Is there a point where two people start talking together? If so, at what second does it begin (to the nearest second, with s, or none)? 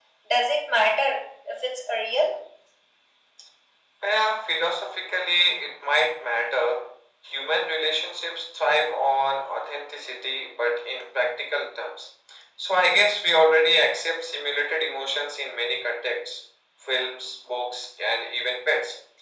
none